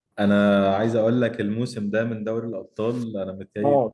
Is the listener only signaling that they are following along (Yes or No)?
Yes